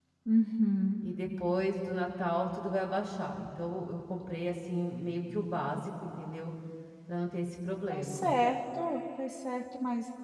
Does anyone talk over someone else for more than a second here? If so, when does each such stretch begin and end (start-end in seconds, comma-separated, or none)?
none